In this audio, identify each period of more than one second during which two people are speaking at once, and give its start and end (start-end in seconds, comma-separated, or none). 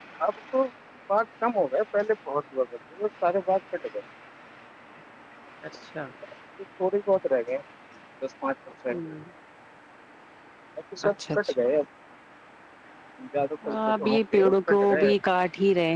13.7-15.1